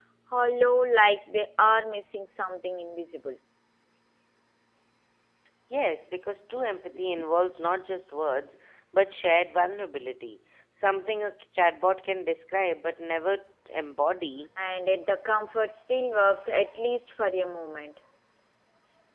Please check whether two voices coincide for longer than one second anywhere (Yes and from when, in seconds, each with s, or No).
No